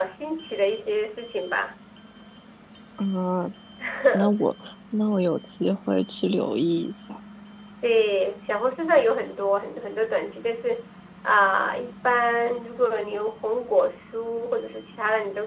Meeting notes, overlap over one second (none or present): none